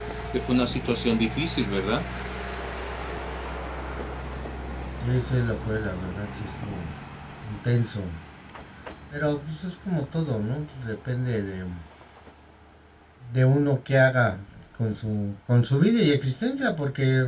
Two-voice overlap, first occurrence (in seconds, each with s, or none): none